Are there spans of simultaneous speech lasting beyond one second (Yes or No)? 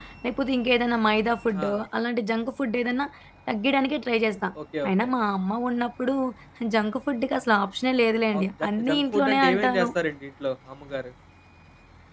Yes